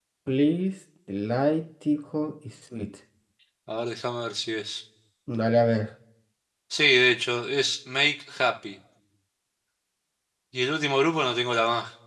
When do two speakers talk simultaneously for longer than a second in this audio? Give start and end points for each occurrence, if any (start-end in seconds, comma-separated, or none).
none